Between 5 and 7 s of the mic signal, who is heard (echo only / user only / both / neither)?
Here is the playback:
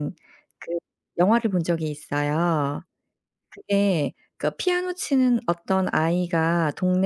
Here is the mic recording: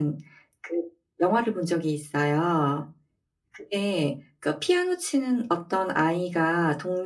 echo only